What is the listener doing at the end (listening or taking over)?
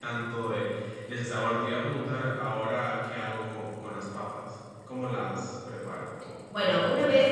taking over